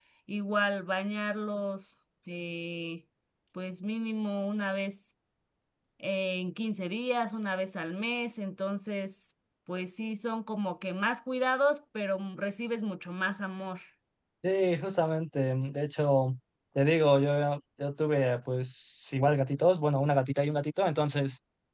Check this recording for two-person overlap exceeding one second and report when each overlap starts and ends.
none

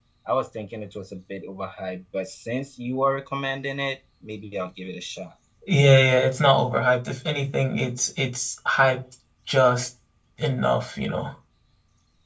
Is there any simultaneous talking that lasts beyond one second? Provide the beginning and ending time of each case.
none

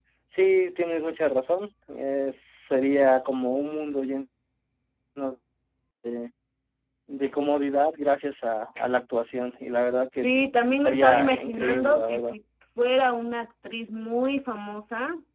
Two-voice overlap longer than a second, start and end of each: 10.7-12.3

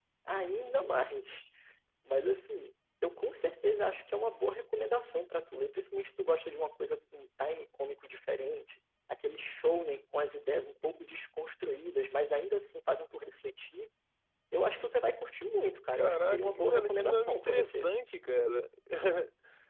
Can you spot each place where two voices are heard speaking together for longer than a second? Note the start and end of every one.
15.9-17.9

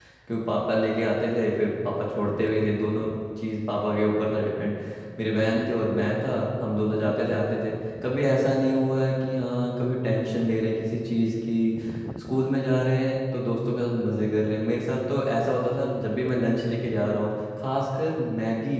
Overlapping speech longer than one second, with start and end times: none

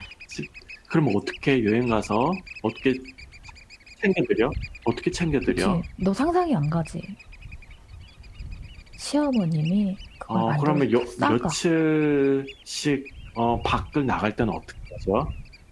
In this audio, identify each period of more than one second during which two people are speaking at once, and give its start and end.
10.3-11.5

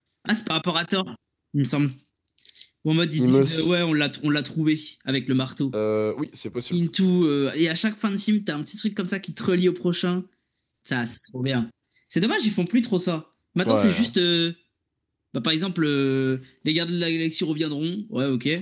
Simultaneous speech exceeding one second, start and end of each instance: none

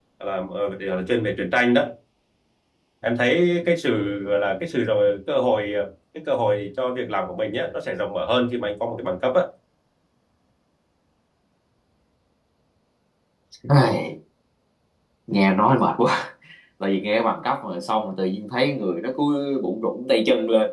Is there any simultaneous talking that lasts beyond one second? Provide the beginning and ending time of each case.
none

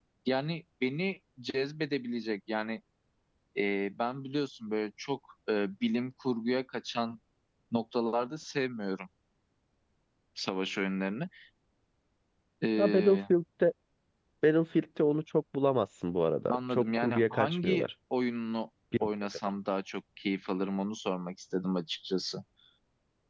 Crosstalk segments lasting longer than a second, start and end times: 16.5-17.9

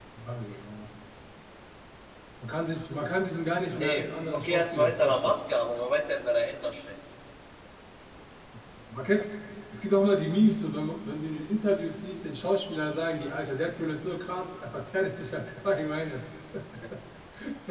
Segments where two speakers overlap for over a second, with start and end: 3.7-5.4

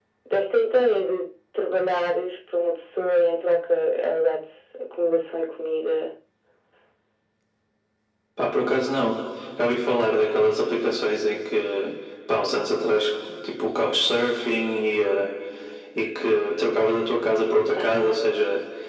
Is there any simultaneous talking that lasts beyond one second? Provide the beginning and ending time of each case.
none

